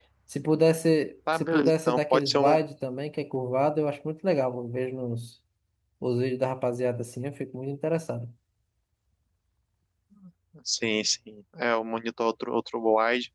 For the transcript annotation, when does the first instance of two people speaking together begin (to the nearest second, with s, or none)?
1 s